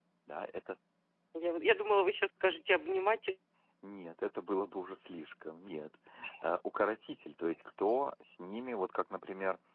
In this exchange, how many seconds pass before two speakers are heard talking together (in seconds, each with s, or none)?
none